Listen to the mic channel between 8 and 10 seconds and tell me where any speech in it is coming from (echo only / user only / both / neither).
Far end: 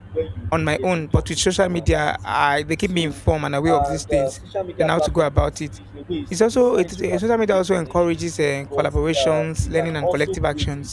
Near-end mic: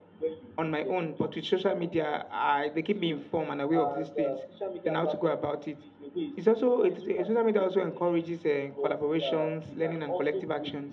echo only